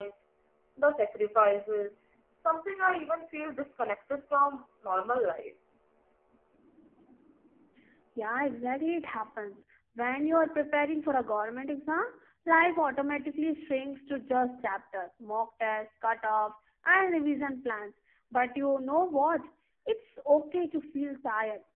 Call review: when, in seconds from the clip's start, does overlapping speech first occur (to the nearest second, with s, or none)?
none